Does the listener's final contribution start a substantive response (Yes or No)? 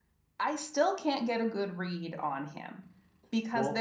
No